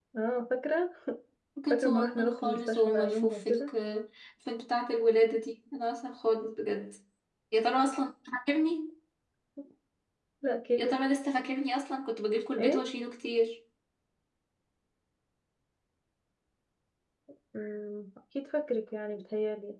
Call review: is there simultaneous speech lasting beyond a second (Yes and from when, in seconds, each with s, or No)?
Yes, from 1.7 s